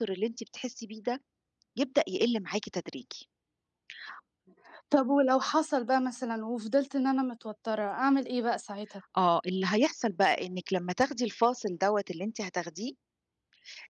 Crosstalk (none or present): none